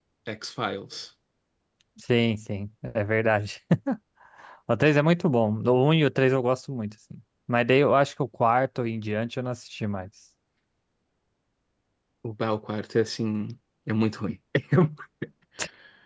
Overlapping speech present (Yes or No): No